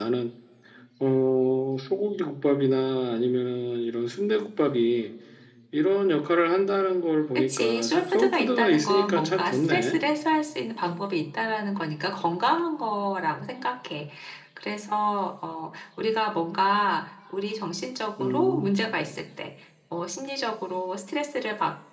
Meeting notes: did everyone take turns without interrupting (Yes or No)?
No